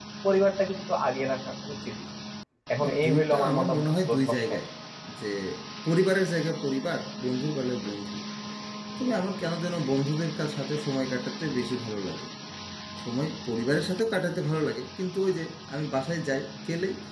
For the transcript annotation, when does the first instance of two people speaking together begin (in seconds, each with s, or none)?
2.8 s